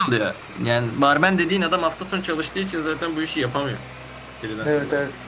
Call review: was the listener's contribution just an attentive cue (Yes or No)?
No